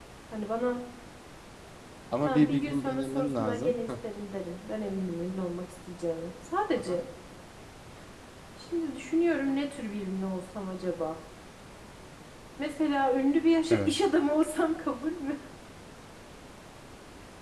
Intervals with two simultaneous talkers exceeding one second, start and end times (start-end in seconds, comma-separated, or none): 2.2-3.9